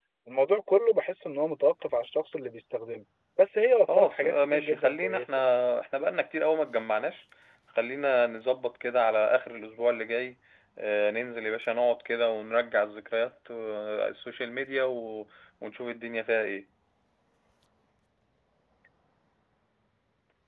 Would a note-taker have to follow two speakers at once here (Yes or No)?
Yes